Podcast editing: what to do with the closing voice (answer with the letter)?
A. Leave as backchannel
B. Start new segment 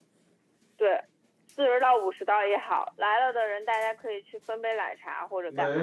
B